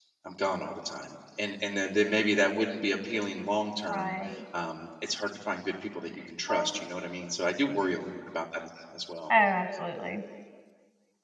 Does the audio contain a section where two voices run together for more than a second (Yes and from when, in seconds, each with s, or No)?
No